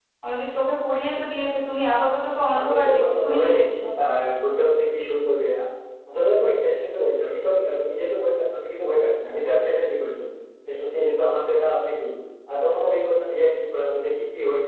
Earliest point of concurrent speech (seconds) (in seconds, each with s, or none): 2.5 s